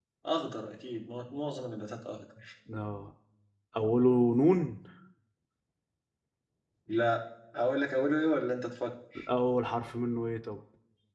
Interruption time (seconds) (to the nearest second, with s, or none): none